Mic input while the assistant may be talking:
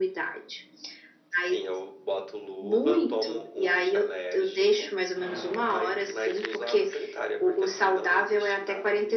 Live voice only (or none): none